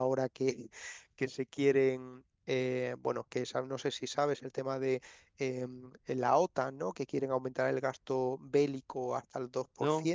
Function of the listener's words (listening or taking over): listening